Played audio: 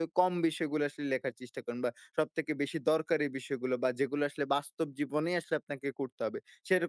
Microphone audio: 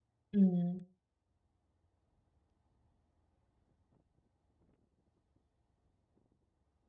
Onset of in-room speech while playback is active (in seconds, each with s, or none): 0.3 s